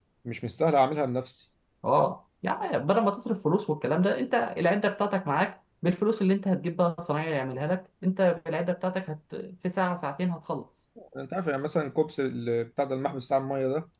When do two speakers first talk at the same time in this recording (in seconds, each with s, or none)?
none